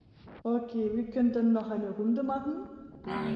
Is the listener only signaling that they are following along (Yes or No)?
No